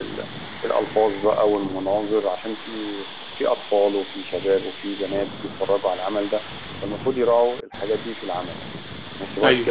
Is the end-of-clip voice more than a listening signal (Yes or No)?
No